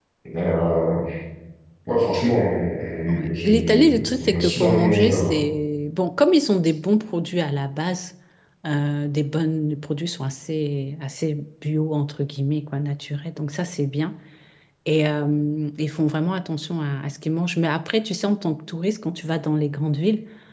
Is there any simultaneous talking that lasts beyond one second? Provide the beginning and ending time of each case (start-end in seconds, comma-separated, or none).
3.1-5.3